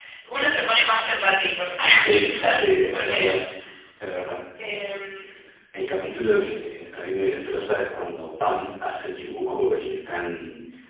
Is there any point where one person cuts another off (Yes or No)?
Yes